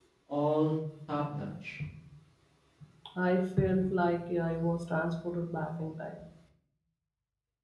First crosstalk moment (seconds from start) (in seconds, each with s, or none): none